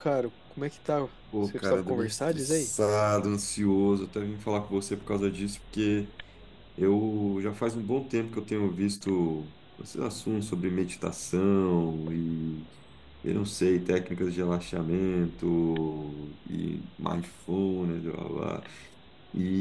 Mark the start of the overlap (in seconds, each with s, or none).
1.4 s